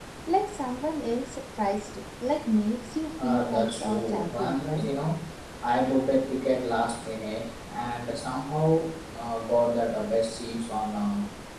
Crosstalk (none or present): present